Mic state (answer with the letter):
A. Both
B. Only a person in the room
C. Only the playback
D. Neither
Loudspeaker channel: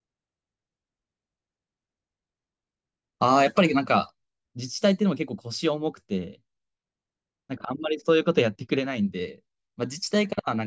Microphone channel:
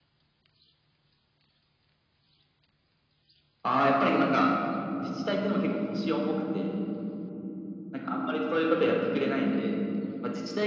C